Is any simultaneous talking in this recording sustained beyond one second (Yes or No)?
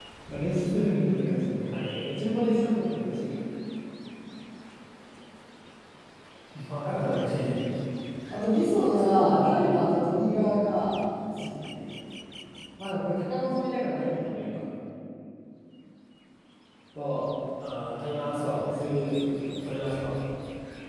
Yes